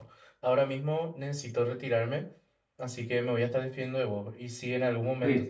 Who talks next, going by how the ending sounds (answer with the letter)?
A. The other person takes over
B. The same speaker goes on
B